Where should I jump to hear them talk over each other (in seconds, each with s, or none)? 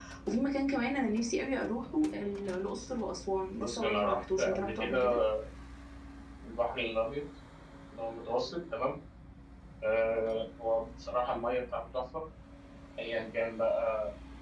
3.6 s